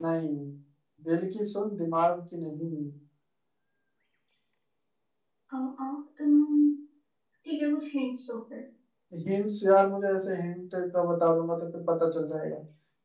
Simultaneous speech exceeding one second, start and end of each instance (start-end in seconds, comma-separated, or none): none